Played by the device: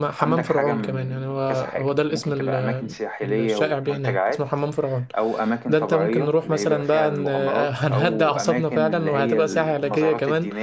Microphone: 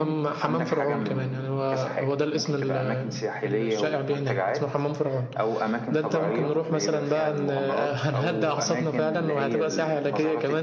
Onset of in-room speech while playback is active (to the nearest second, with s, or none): 6 s